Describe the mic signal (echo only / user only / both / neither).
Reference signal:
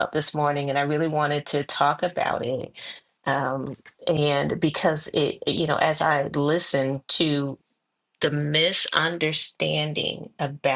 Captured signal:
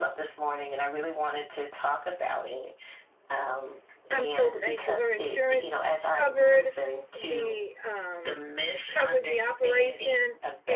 both